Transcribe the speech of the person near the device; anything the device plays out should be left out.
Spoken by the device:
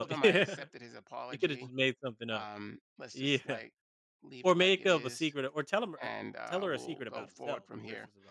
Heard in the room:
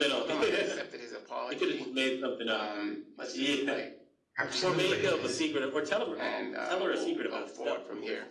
Absolutely,

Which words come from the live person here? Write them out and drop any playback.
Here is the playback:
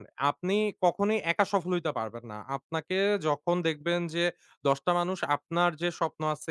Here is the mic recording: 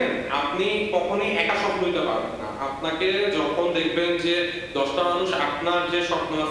none

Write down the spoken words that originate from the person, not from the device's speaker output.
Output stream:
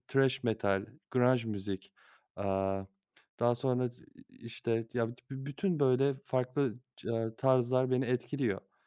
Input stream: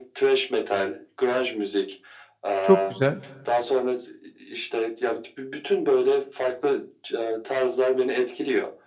Çok güzel.

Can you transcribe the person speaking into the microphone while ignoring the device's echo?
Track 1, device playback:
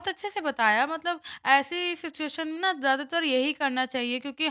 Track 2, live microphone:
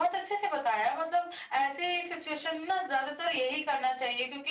none

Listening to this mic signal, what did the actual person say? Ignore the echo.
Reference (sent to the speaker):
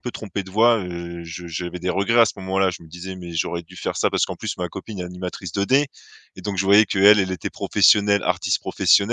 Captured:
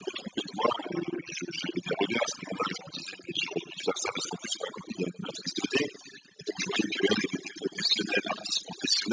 none

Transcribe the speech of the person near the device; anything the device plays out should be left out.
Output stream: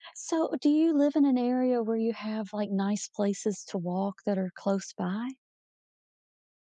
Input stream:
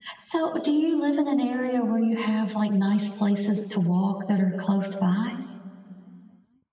none

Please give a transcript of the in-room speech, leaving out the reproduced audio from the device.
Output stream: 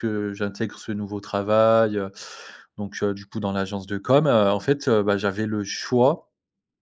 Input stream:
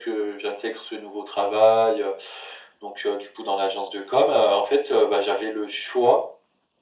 none

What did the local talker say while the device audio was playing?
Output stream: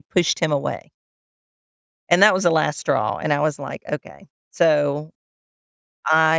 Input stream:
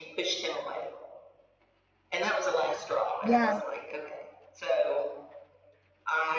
yeah,

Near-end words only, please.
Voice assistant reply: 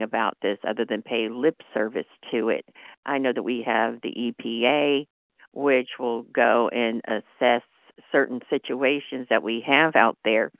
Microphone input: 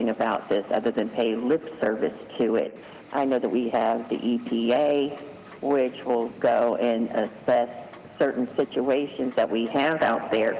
none

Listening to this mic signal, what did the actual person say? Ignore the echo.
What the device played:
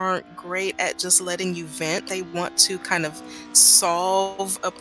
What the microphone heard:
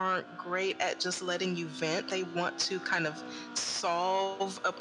none

